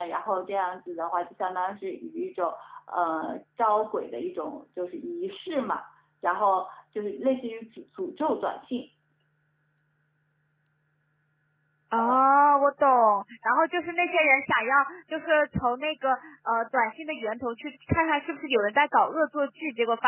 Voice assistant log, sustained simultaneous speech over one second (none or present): none